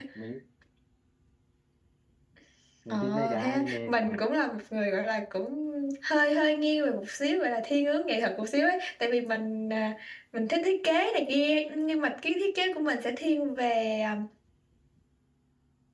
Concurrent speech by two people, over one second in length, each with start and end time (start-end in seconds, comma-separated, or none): 2.9-4.2